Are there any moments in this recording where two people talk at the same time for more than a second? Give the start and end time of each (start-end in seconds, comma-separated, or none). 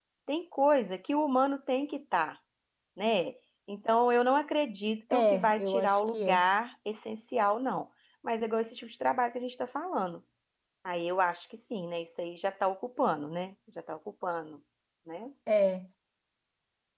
5.1-6.5